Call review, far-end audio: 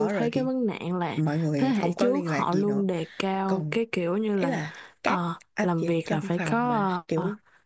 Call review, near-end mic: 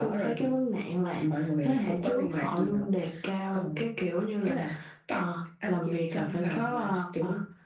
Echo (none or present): present